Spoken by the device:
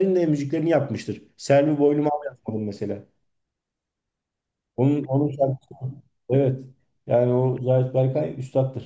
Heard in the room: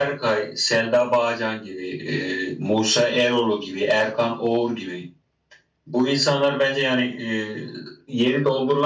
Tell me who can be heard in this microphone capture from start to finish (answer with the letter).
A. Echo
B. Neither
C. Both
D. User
D